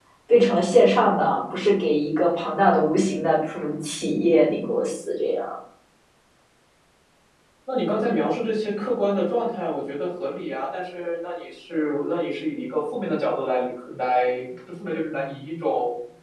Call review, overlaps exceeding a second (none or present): none